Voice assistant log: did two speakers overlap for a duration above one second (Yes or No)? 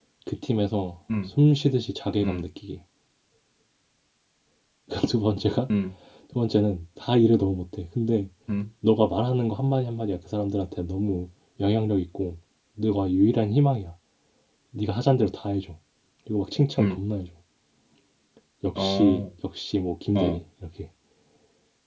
No